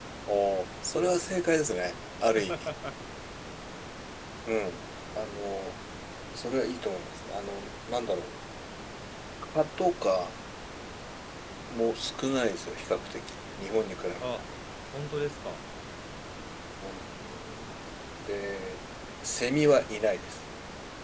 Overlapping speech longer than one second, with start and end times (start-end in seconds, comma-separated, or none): none